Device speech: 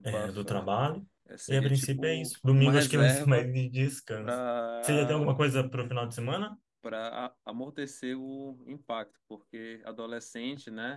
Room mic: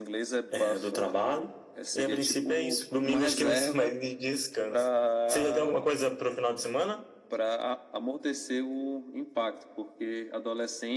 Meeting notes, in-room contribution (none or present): none